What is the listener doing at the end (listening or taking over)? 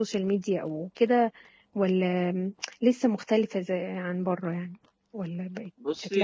taking over